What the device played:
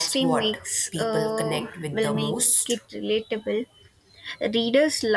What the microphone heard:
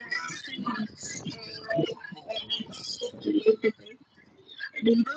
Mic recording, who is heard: echo only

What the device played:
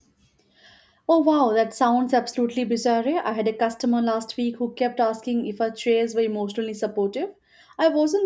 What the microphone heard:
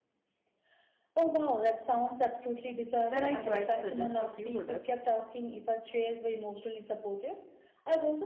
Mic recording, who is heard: both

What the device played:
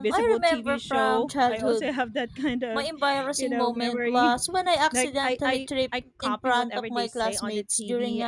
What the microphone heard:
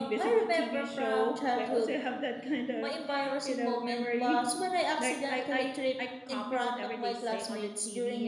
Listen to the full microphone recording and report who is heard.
echo only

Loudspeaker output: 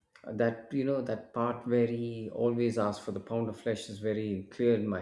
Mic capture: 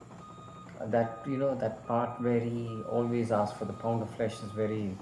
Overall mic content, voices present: echo only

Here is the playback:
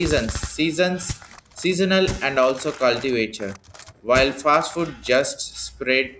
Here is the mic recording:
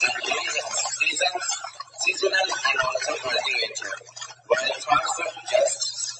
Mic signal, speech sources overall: echo only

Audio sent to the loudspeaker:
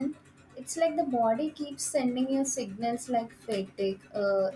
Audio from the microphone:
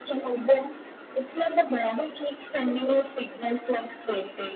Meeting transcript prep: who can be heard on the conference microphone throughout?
echo only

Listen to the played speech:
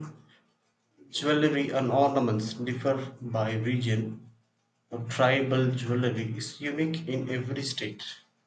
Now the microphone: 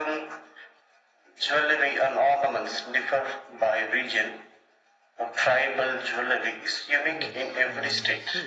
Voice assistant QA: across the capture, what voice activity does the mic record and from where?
both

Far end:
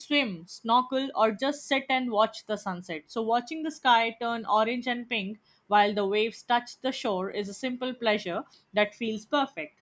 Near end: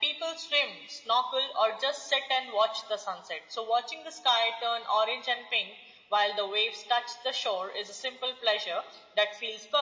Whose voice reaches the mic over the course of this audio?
echo only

